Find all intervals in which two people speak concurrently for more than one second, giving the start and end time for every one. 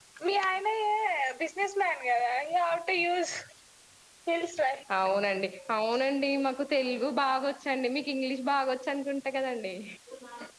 none

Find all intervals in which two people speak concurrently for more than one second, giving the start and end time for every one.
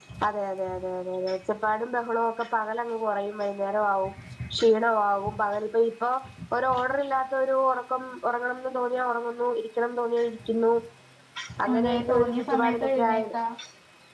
11.7-13.2

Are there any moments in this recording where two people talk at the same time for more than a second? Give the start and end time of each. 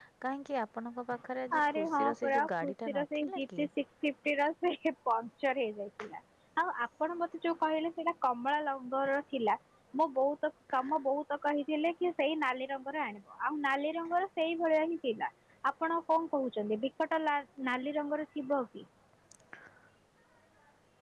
1.6-3.6

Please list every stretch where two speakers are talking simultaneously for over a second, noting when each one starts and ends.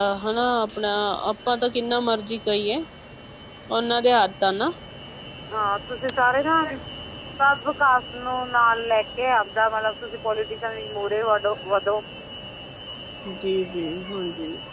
none

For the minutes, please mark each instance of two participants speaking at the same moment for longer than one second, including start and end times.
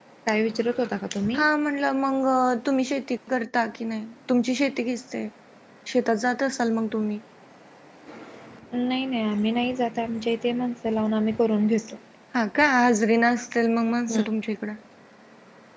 none

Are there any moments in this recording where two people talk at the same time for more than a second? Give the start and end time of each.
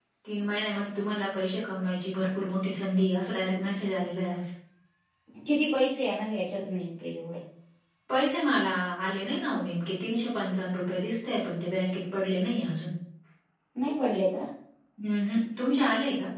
none

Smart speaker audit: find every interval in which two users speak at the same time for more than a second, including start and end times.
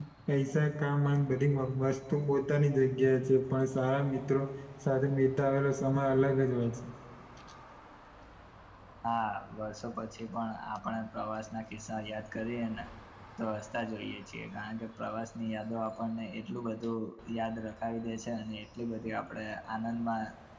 none

